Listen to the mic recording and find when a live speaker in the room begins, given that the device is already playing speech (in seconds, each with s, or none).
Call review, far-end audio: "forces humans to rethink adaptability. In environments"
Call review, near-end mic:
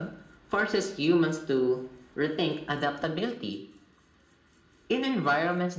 none